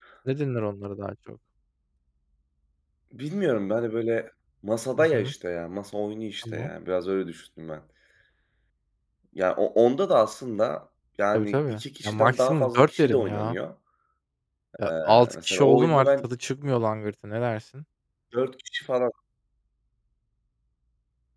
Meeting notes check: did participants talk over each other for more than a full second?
Yes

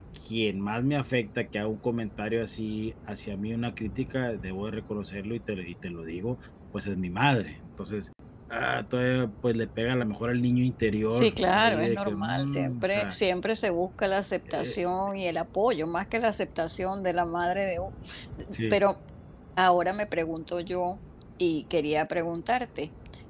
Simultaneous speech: Yes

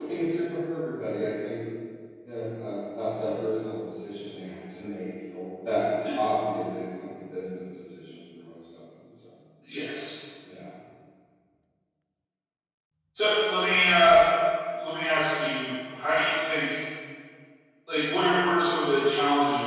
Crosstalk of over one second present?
No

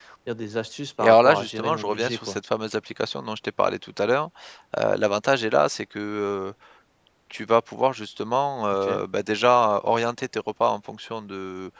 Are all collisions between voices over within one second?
No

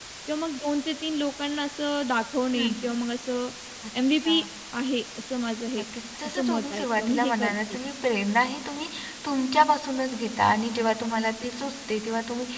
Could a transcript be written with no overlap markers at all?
No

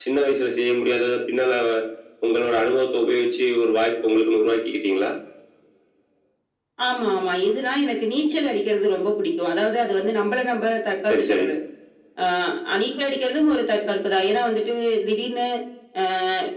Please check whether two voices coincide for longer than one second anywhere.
No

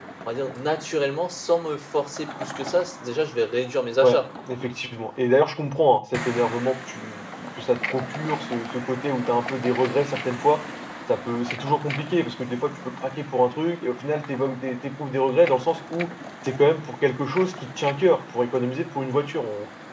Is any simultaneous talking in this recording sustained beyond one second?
No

